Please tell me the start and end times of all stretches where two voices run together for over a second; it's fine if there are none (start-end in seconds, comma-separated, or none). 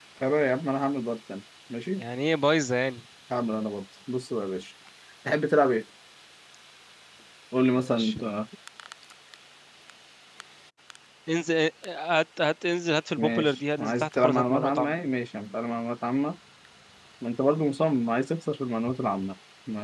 13.2-14.9